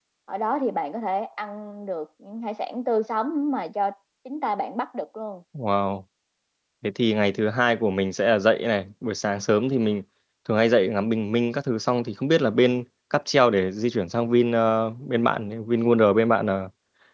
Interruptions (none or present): none